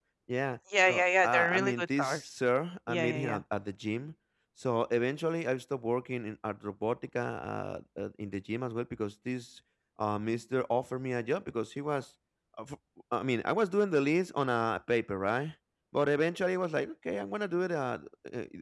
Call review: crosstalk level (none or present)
present